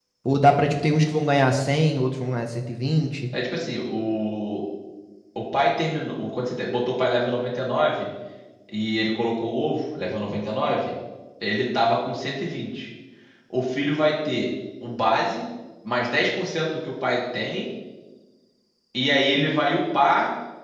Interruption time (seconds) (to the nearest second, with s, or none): none